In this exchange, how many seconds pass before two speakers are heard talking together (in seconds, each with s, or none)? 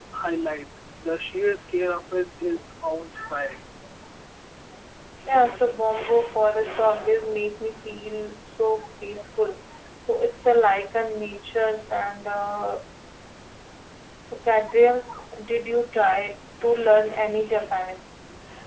none